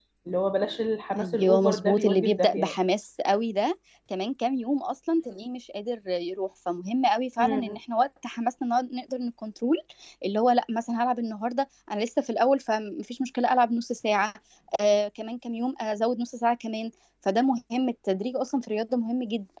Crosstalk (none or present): present